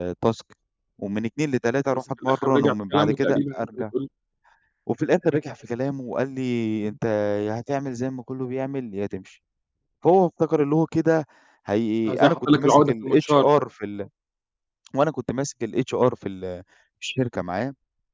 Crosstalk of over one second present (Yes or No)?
Yes